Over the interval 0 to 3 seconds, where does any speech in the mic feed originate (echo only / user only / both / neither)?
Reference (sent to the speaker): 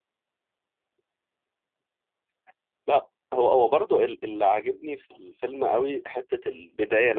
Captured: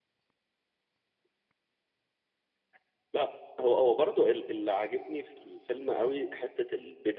neither